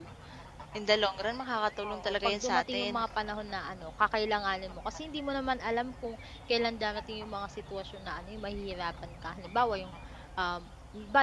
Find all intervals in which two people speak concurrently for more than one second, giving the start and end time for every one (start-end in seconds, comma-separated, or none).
1.8-3.1